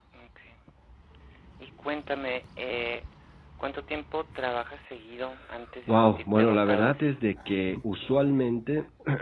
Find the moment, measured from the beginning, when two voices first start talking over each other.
5.9 s

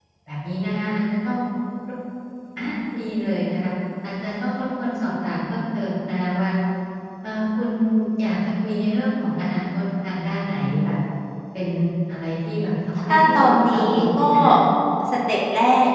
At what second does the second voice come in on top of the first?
13.1 s

